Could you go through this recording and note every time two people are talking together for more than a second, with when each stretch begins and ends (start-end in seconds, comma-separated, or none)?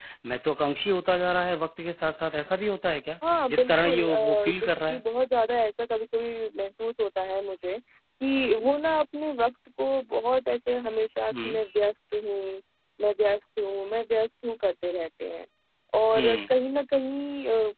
3.5-5.0